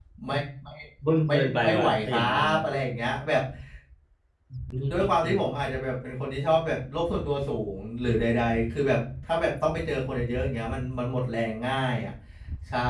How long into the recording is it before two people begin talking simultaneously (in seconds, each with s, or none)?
1.3 s